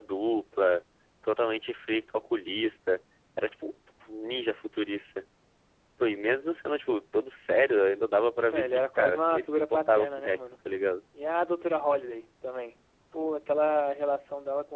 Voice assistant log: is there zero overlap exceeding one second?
No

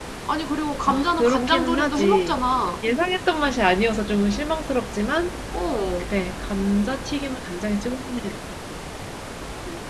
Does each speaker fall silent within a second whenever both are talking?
No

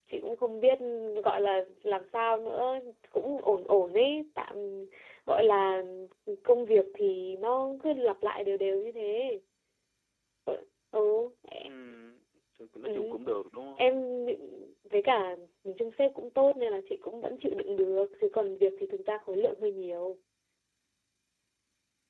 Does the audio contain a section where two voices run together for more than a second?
No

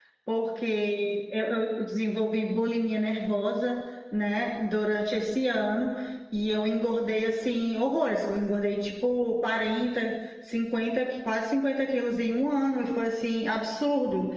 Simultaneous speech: No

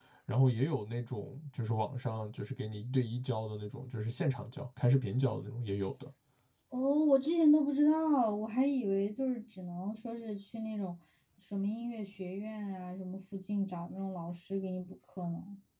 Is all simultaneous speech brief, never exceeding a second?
Yes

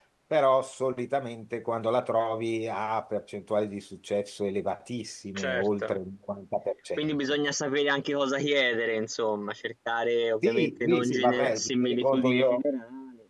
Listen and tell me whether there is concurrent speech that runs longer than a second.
Yes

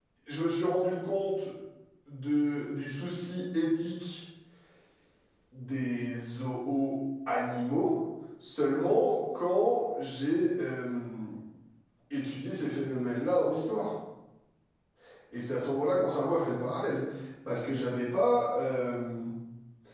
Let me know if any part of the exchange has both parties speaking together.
No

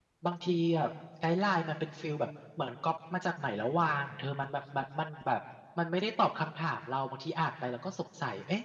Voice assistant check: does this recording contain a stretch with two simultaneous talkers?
No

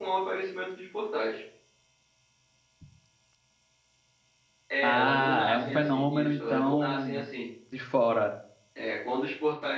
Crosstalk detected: Yes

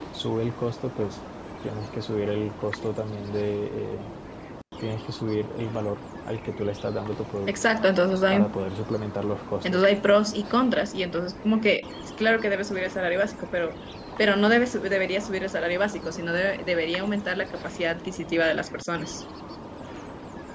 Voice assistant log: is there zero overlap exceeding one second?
Yes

